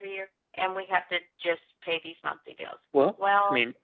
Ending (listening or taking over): taking over